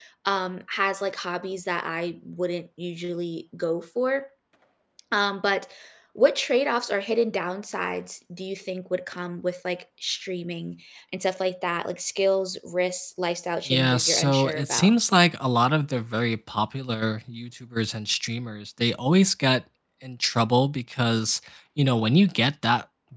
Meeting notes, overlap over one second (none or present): present